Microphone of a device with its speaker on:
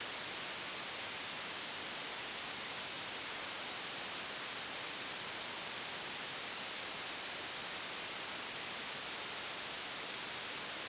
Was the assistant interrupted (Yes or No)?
No